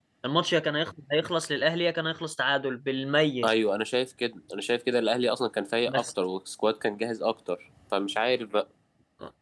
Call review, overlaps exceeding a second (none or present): none